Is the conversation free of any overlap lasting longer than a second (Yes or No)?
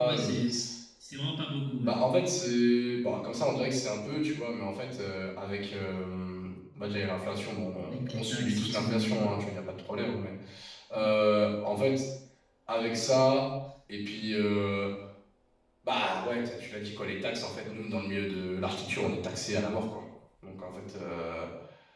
No